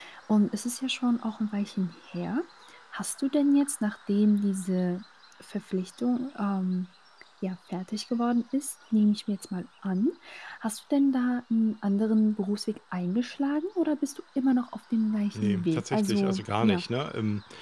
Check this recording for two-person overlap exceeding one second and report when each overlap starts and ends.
15.4-16.8

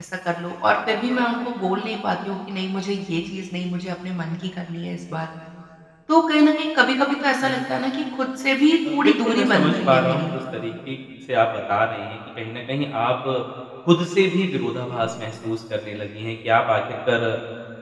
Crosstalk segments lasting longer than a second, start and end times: 8.9-10.3

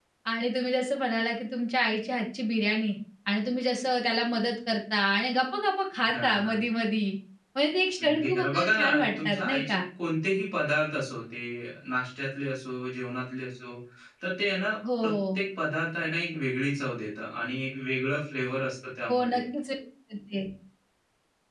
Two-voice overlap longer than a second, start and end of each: 8.0-9.8

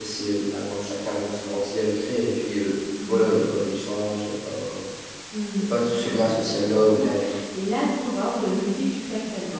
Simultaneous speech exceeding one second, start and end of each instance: 5.7-7.1

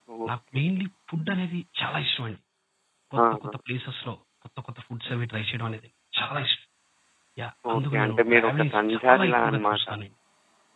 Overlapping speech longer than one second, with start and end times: 7.7-9.8

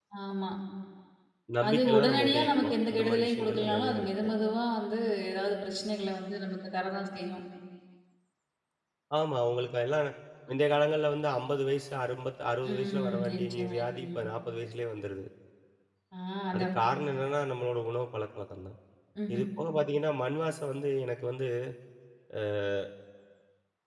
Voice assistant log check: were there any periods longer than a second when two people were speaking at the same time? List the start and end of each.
1.7-4.3, 12.7-14.2

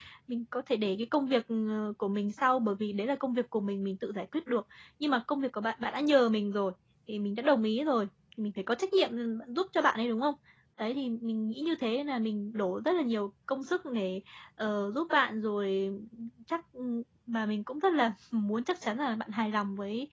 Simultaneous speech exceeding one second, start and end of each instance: none

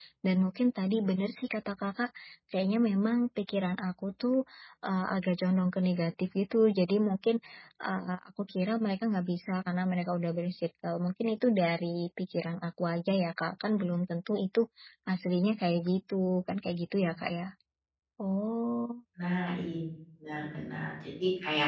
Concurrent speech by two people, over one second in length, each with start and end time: none

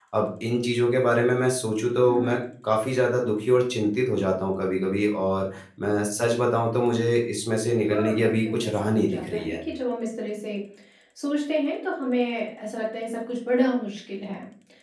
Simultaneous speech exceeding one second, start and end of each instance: 7.9-9.6

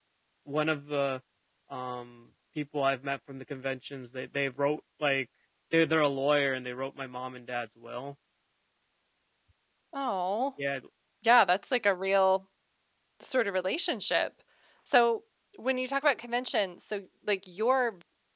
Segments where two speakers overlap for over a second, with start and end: none

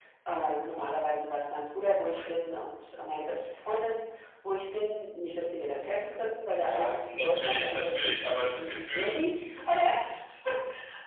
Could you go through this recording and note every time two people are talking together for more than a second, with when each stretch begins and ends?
6.6-9.2

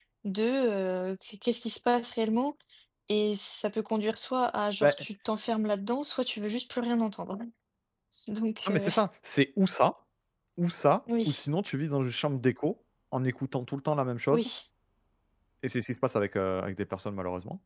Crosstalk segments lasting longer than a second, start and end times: none

